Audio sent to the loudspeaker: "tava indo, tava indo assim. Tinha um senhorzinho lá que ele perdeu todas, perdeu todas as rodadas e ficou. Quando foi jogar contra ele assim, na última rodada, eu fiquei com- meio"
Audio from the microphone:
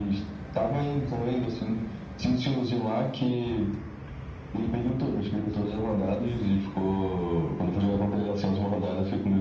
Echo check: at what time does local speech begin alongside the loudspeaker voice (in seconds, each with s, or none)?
none